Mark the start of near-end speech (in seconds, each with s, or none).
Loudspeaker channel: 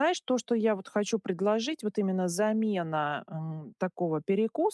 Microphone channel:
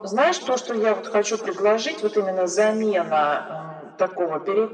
none